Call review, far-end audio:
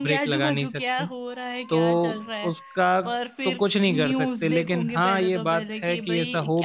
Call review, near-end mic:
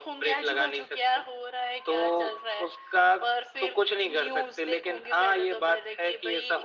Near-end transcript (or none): none